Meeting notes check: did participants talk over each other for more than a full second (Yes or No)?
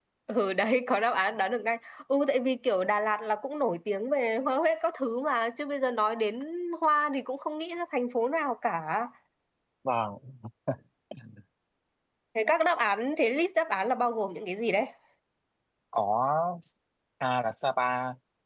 No